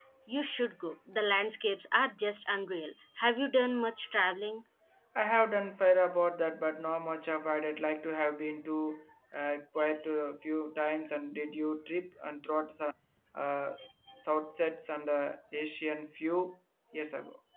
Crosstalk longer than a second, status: none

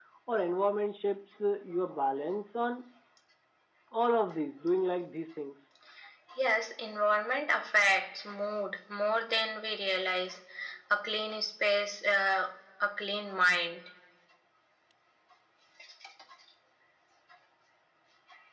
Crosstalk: none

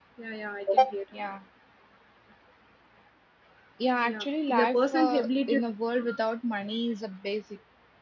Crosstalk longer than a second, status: present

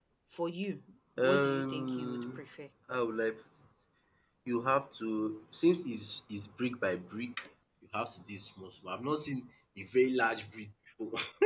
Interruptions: present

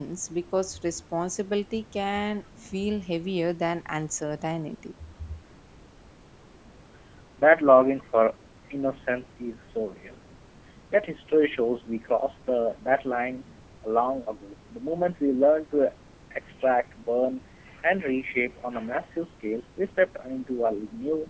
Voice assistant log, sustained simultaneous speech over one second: none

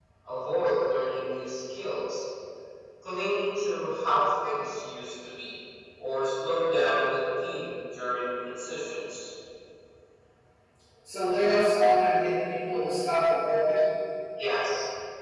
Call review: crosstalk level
none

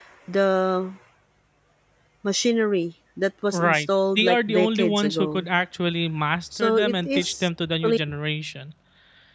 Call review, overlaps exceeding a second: present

